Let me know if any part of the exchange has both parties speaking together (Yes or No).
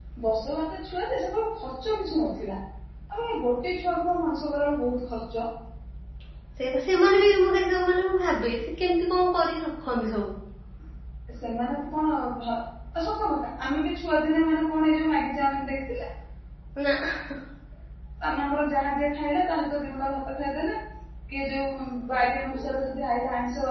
No